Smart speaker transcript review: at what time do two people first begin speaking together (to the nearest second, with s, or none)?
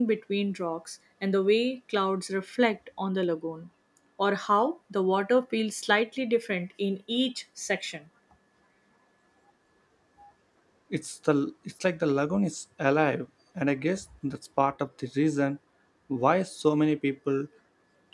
none